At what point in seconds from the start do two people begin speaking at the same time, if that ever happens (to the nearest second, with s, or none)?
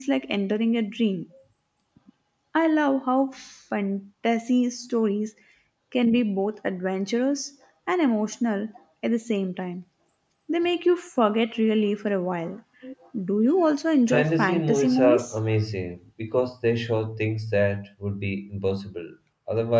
14 s